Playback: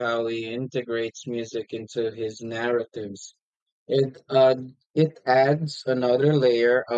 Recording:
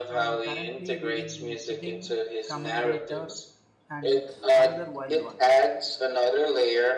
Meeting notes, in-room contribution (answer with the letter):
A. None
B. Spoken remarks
B